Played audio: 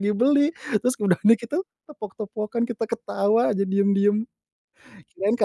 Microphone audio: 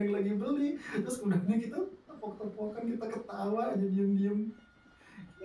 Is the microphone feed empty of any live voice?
Yes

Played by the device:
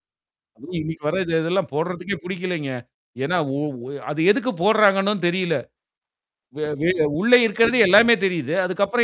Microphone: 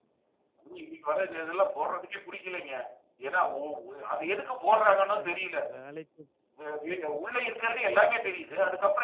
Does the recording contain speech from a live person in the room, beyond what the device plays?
Yes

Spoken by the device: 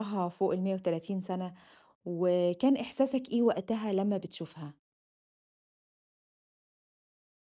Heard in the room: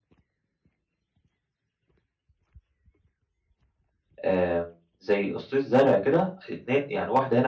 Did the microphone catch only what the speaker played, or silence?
No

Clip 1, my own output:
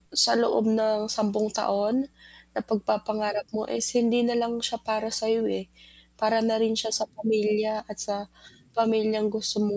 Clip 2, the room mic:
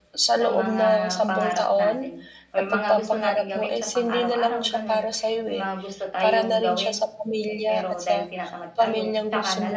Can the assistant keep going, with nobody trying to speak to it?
No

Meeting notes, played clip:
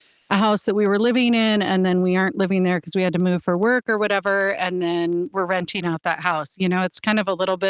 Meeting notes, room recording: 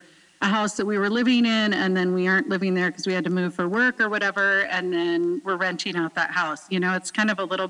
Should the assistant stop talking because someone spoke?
No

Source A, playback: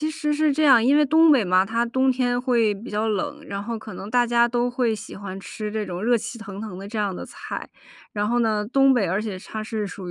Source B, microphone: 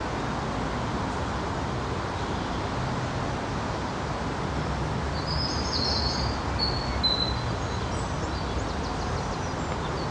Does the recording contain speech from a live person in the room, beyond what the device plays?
No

